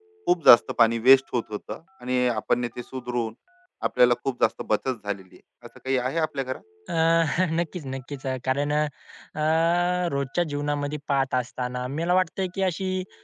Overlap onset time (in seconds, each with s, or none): none